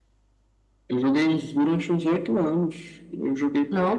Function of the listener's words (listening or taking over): listening